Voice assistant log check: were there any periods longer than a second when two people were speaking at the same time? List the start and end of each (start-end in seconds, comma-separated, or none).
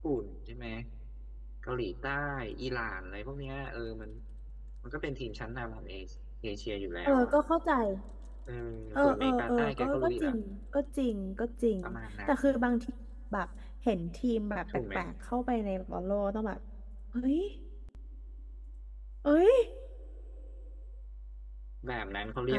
8.9-10.3